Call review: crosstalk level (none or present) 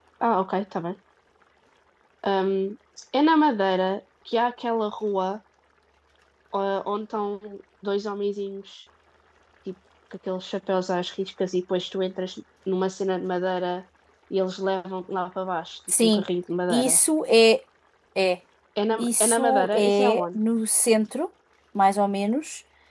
present